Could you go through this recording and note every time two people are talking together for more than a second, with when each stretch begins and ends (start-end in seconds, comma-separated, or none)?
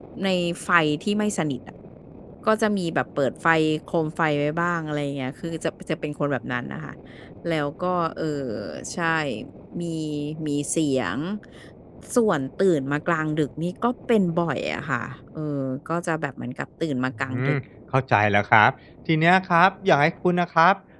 none